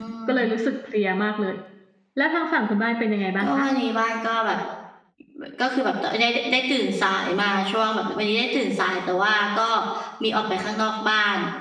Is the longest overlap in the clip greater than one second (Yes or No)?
No